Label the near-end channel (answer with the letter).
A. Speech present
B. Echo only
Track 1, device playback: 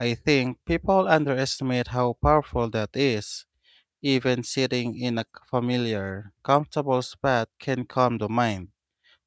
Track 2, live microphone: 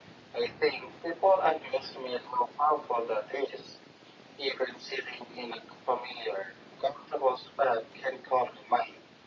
B